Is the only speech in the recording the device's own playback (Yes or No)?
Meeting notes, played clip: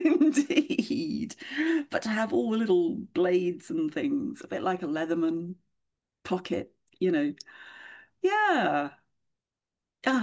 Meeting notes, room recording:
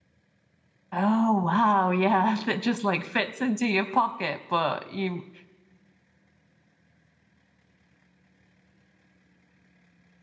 No